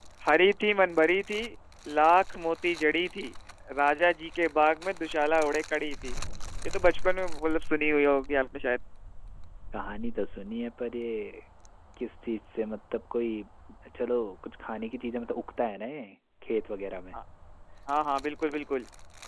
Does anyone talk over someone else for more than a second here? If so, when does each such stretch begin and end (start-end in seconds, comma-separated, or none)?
none